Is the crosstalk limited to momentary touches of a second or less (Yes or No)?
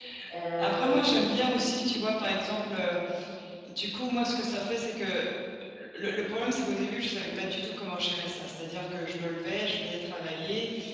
No